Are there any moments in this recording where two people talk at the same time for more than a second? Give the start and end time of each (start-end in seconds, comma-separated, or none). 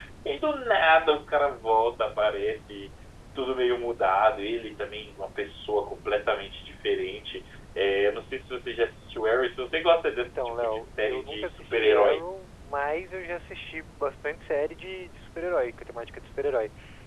10.2-12.2